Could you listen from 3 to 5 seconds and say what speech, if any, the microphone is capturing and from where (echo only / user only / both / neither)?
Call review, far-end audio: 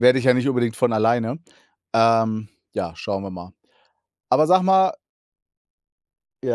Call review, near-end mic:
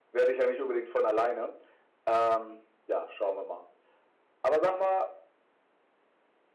echo only